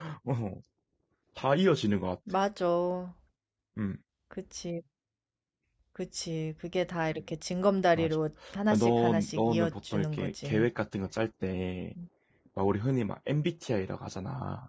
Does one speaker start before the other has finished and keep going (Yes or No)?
Yes